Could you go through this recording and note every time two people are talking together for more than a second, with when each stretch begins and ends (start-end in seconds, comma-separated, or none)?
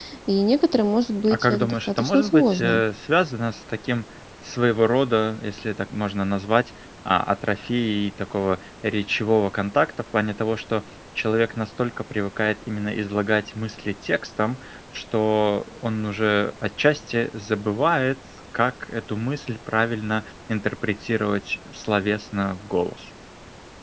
1.3-2.8